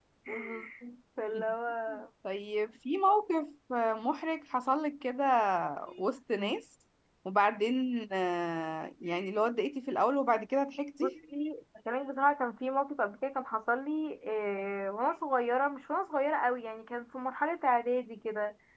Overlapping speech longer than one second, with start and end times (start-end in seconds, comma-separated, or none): none